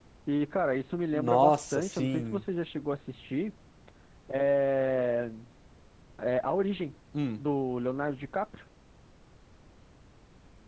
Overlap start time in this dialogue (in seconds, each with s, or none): 1.1 s